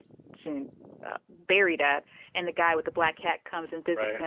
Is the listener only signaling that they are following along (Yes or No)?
Yes